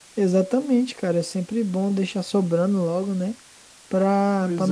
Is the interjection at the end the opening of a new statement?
No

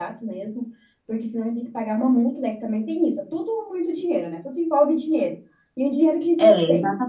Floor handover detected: Yes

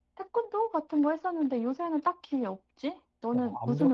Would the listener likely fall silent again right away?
No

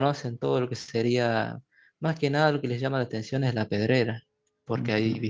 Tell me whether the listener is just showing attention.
Yes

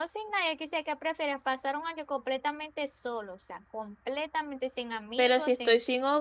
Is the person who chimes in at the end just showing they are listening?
No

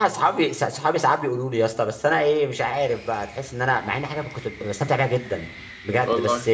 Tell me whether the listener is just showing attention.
Yes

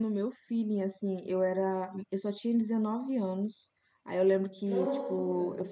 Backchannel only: Yes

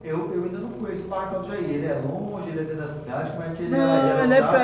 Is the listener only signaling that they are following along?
No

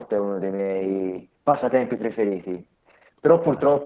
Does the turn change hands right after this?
No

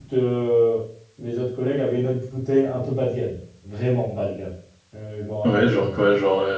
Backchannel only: No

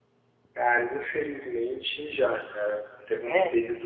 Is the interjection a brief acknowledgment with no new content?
Yes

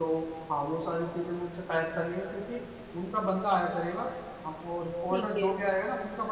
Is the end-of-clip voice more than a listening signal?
No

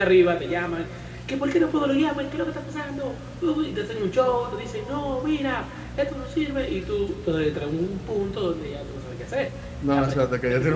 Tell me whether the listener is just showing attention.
No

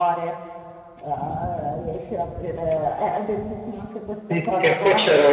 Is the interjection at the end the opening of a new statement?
Yes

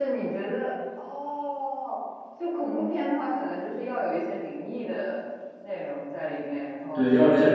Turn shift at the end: Yes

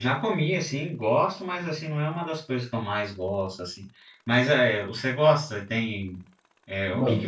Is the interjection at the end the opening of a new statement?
Yes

